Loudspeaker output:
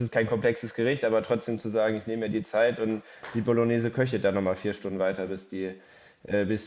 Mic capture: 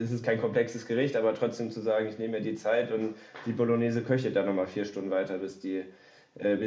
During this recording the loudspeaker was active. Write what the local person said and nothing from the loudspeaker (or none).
none